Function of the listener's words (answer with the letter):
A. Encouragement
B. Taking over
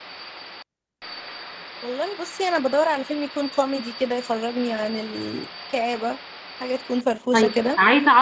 B